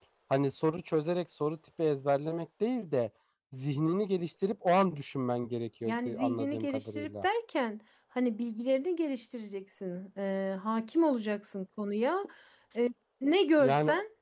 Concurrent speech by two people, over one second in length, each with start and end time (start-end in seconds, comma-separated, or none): 5.8-7.3